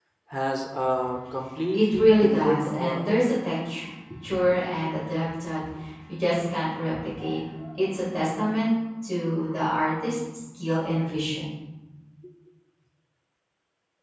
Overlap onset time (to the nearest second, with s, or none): 2 s